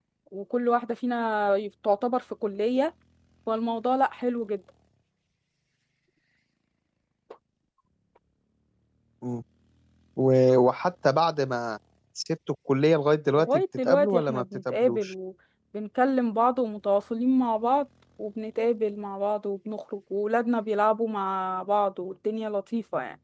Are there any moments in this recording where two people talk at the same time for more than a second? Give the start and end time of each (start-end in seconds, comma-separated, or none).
13.4-15.1